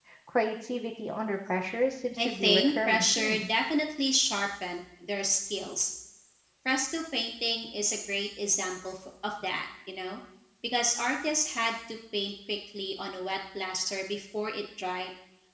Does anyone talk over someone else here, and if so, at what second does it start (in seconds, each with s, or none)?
2.2 s